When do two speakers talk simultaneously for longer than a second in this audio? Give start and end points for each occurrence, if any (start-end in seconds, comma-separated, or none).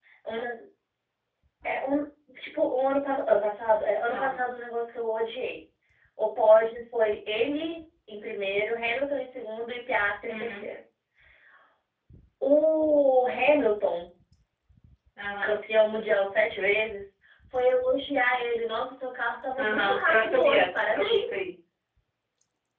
19.6-21.3